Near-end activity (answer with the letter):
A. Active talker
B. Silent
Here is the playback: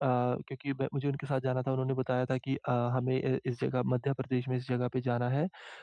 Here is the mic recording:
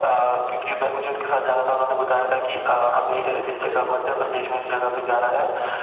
A